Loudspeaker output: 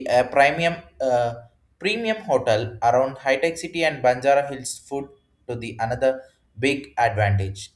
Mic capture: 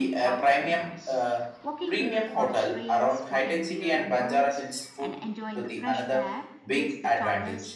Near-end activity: present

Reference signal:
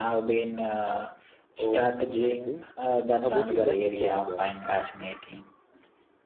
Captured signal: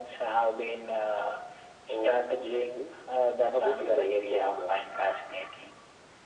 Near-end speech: none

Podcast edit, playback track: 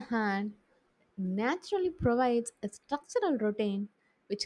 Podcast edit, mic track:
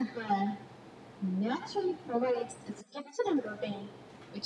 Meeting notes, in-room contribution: none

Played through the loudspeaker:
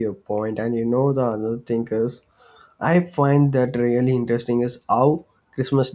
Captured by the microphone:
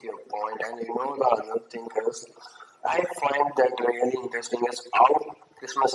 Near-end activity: none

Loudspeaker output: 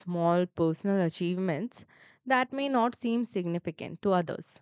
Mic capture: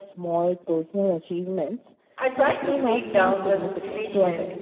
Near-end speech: present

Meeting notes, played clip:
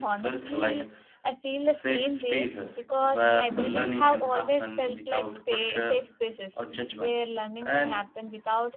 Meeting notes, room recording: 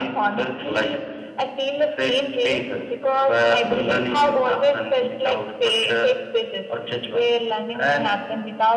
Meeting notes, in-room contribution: none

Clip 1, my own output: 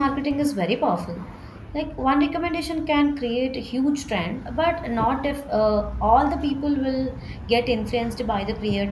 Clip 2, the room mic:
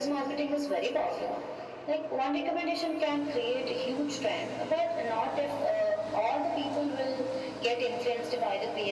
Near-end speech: none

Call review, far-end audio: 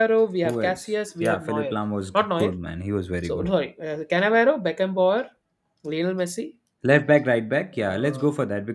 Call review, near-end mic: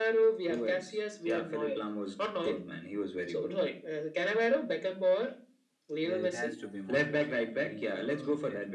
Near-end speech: present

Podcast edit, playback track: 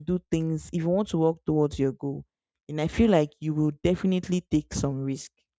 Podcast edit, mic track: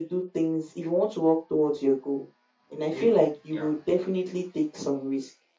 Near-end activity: present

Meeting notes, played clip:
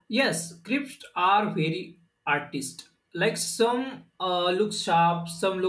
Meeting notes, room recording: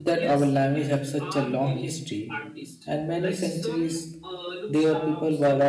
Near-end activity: present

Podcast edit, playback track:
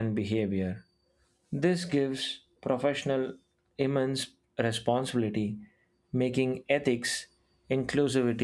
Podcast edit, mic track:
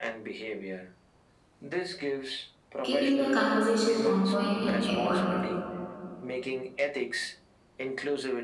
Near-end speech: present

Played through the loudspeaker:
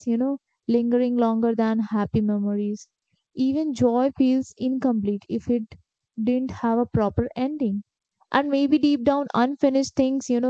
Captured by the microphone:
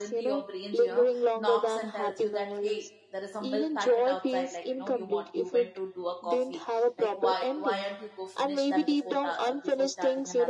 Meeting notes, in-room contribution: present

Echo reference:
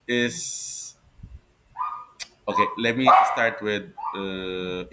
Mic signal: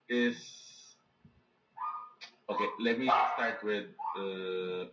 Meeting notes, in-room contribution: none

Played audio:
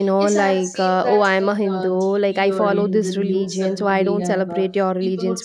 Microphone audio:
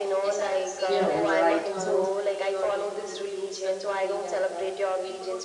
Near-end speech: present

